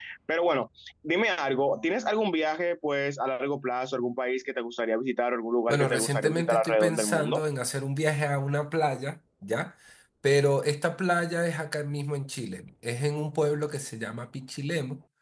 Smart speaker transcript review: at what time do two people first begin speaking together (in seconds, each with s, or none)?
5.7 s